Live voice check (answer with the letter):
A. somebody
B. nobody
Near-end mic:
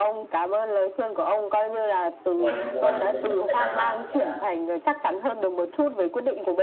A